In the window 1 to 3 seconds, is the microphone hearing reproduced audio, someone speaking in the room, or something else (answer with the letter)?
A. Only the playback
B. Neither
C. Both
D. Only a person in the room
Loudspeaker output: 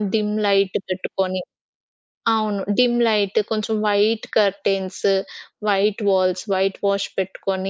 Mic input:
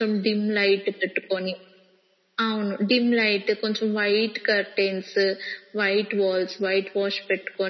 A